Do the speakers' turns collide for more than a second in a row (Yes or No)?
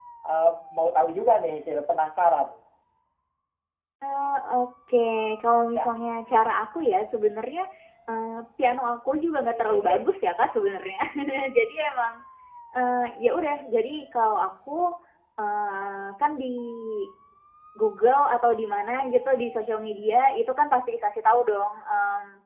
No